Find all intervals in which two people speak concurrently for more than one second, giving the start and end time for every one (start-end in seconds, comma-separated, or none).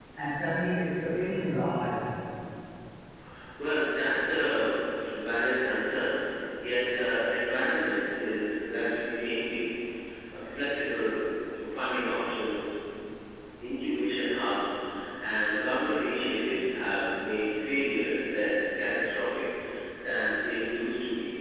none